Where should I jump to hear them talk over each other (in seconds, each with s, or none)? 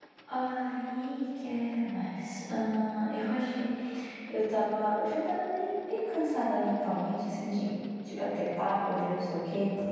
none